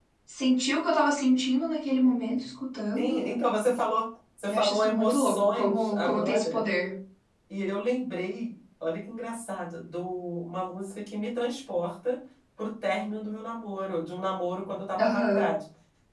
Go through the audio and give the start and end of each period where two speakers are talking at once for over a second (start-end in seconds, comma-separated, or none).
4.5-6.6